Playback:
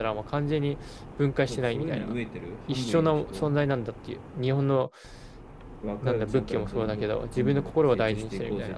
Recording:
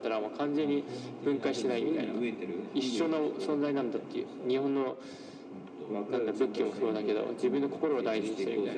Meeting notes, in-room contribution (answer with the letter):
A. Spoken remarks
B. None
A